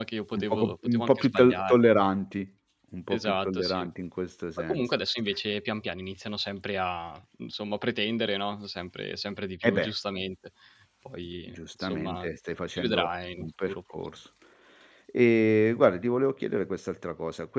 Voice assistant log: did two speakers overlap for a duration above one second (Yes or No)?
Yes